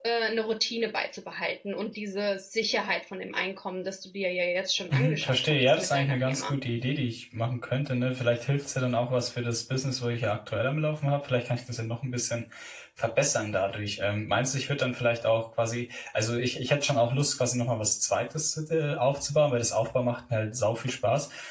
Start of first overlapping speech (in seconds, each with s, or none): 4.9 s